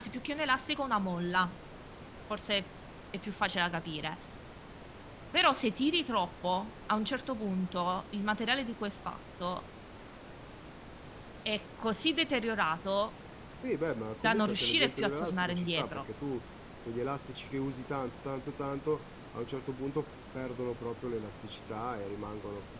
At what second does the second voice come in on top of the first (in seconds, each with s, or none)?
14.2 s